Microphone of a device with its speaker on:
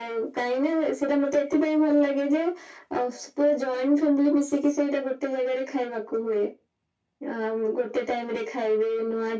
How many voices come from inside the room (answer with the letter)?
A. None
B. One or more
A